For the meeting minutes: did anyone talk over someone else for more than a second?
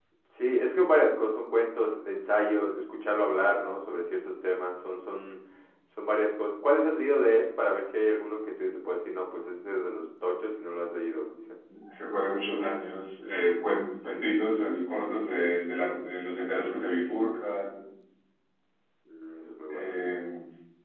No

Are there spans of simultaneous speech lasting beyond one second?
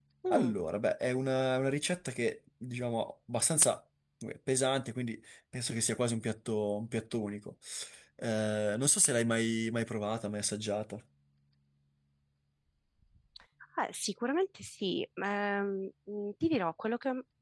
No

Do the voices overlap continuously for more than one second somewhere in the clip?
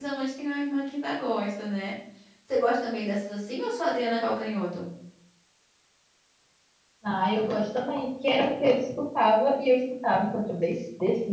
No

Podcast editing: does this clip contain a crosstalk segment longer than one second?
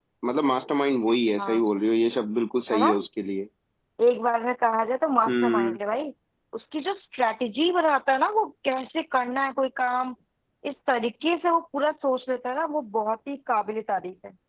No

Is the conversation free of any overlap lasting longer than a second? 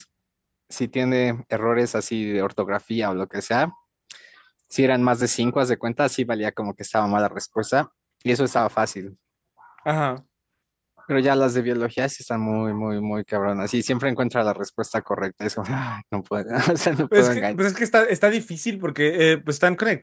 Yes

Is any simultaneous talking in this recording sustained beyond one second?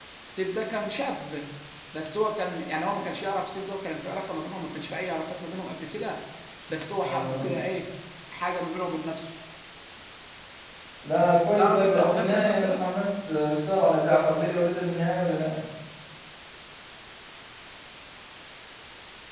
Yes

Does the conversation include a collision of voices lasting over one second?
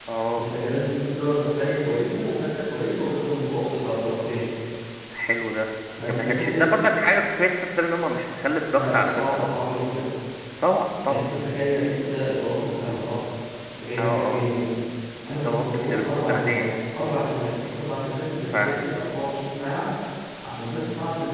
Yes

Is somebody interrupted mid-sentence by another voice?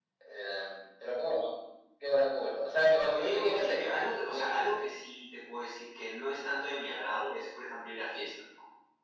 Yes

